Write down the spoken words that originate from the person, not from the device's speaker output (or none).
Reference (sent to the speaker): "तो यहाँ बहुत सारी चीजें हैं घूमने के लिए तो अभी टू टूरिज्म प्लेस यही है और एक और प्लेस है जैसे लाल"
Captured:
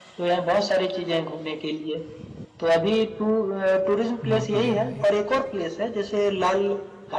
बहुत बढ़िया भाई